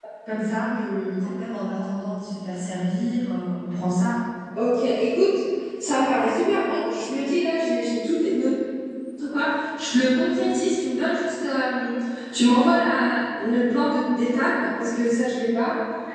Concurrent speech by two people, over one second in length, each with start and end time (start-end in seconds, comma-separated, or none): none